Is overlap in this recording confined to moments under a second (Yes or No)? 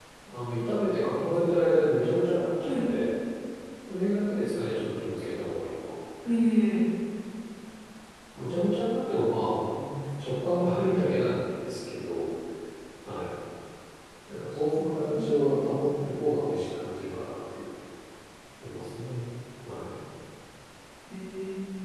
Yes